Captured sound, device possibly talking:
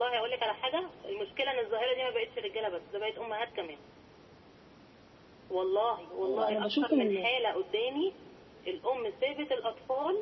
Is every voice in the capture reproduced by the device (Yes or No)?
No